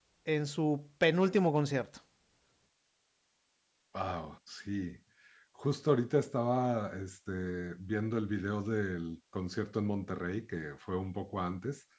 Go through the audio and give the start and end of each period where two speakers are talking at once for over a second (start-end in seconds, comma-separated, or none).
none